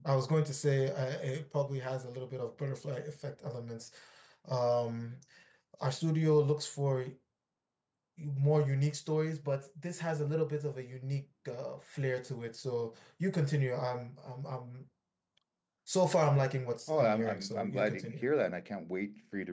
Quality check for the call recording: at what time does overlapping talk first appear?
16.9 s

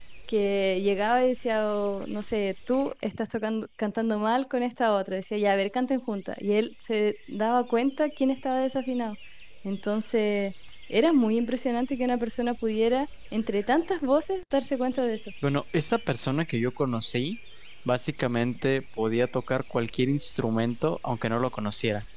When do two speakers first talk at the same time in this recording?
none

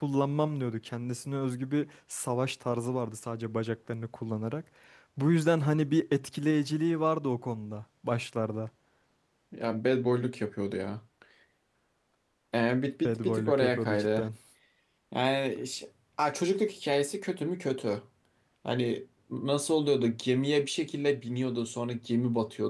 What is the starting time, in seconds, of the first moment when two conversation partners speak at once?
13.0 s

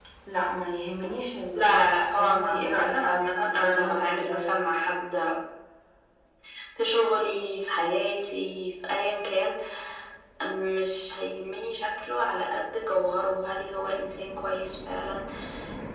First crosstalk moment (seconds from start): 1.5 s

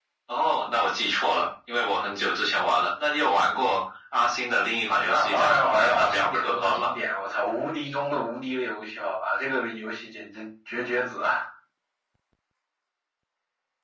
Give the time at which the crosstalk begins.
5.0 s

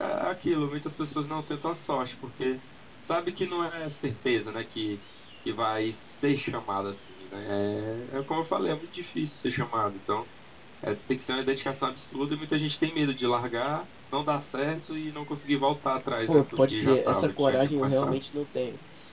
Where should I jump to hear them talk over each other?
16.3 s

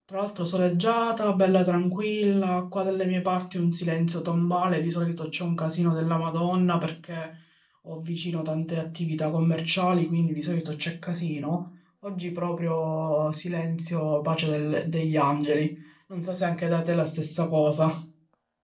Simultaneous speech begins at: none

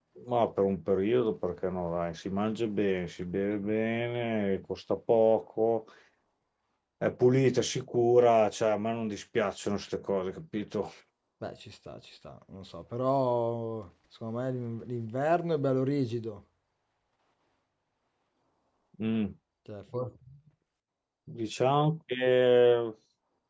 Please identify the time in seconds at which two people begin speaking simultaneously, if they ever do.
none

